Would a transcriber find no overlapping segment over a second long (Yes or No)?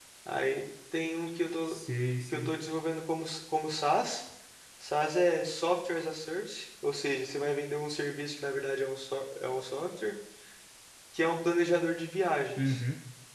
Yes